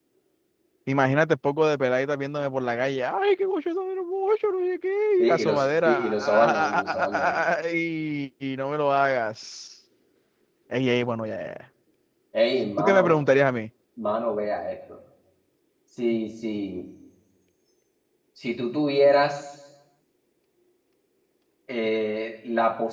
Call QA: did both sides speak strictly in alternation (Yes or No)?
No